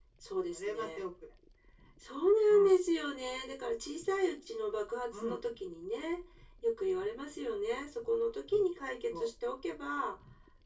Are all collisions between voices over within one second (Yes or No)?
Yes